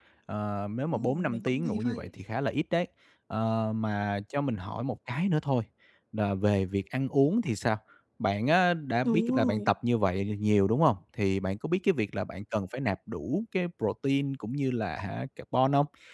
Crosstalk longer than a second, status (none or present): present